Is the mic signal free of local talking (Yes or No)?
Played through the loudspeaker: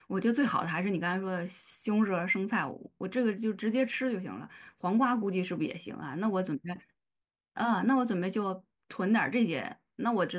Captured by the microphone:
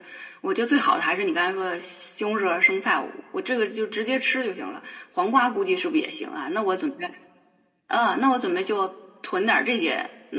Yes